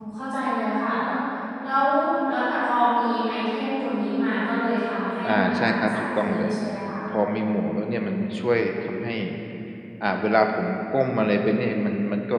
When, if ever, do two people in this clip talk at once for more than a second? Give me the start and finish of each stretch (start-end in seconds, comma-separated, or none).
5.2-6.5